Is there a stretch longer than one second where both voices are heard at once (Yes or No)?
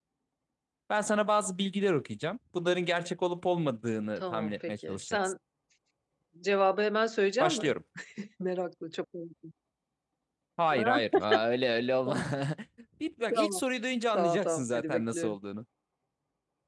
Yes